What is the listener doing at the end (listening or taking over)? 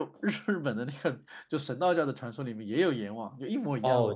taking over